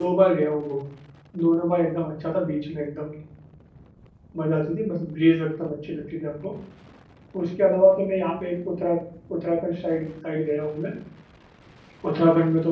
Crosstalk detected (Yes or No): No